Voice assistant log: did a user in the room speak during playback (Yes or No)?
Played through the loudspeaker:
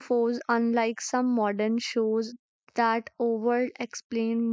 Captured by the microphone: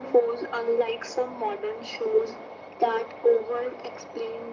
No